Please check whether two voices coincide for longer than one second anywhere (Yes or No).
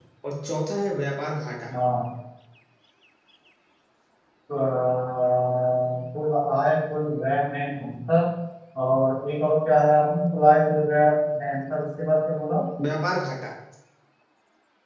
No